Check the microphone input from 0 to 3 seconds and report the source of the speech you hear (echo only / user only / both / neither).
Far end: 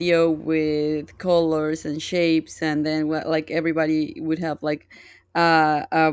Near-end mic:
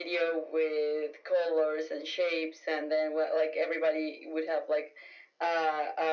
echo only